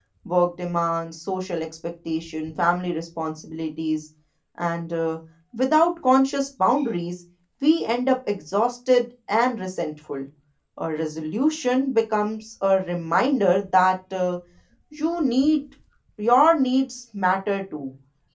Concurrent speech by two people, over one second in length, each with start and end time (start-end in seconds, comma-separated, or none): none